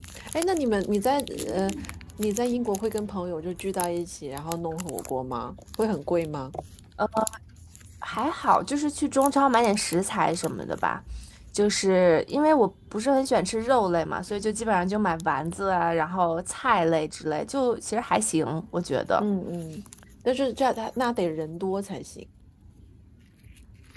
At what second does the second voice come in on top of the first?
none

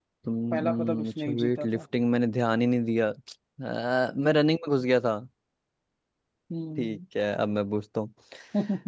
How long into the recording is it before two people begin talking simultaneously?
0.5 s

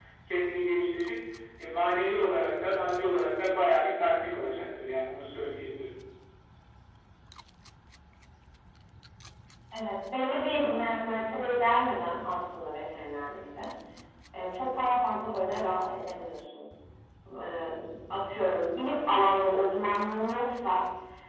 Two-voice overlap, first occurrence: none

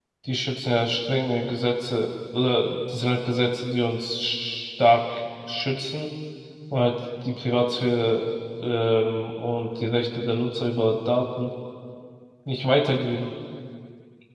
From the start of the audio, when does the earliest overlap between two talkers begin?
none

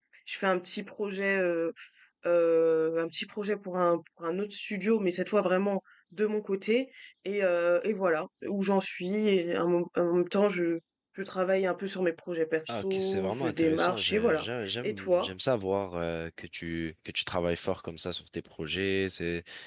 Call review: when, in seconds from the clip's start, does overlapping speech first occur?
12.7 s

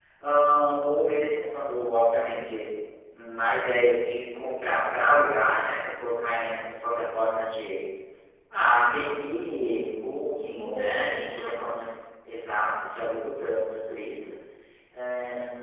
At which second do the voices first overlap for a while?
10.3 s

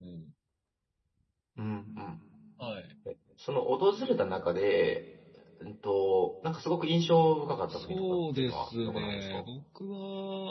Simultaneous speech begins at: 7.7 s

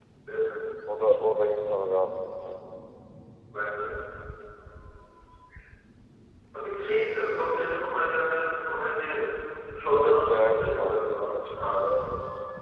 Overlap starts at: 9.9 s

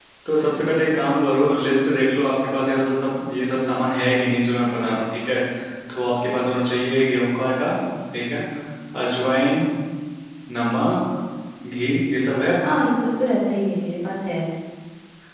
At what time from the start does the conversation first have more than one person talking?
none

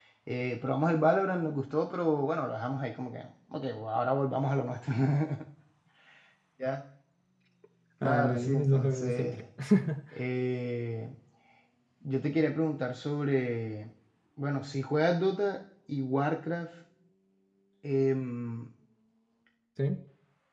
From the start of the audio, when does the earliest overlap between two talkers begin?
8.0 s

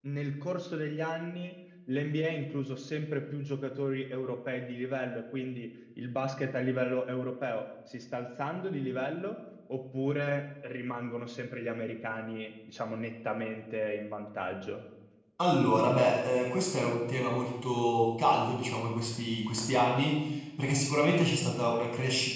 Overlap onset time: none

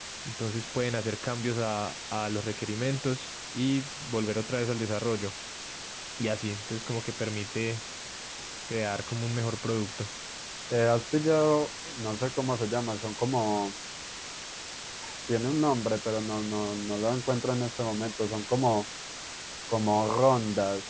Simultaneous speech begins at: none

